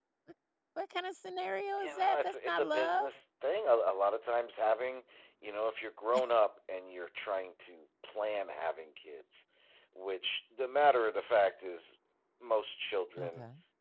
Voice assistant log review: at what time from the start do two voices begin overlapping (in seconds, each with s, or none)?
1.8 s